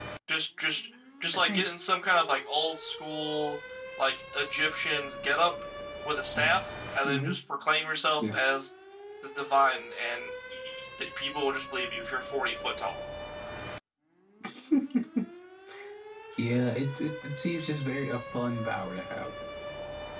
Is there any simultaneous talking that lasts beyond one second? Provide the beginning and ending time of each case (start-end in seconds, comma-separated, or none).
none